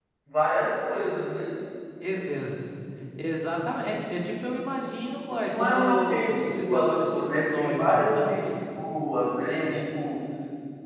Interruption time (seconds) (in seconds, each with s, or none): 5.4 s